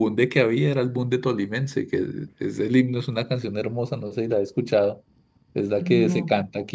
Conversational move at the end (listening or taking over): listening